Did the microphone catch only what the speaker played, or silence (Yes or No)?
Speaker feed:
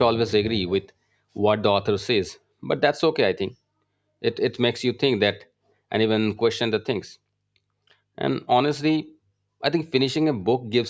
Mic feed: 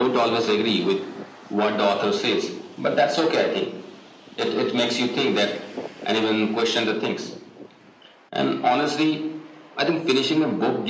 Yes